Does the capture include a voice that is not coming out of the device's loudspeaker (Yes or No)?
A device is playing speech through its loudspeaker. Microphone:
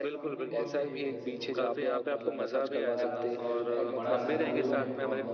Yes